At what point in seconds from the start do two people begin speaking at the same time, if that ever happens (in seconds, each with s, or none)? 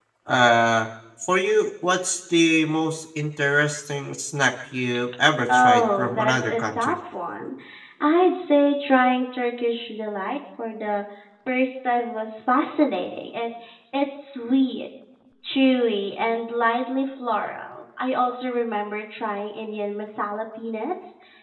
5.5 s